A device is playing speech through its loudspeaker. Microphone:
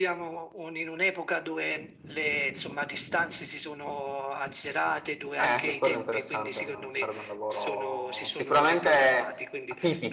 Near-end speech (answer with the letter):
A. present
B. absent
A